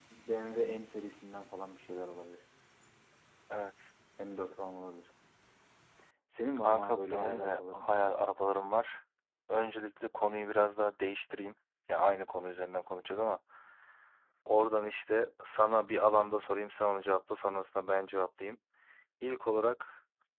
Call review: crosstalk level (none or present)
present